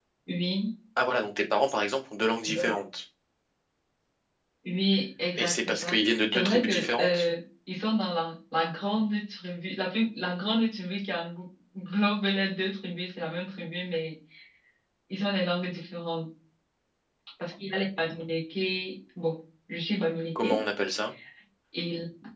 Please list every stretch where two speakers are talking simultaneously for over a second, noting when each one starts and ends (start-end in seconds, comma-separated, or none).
5.4-7.3